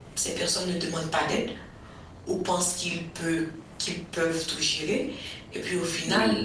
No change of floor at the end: Yes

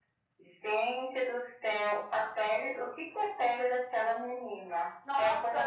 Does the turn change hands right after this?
Yes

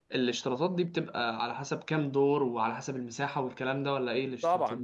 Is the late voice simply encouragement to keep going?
No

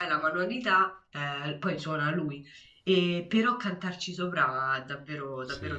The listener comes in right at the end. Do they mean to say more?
Yes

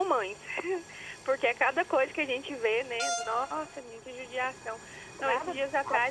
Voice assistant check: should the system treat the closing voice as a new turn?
No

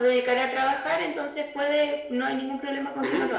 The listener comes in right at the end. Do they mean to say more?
Yes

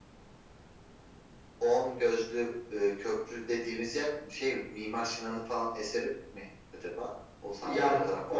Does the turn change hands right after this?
Yes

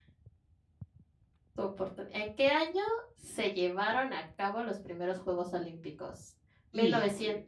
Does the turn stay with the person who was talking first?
Yes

